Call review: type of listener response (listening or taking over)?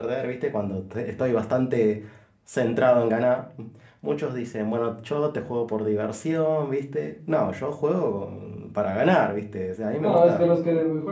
taking over